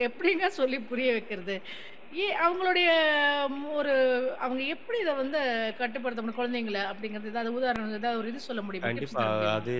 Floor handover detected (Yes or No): Yes